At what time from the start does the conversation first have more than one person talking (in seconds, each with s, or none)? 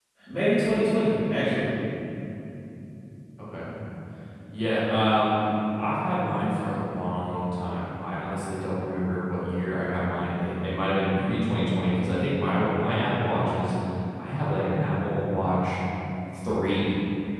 none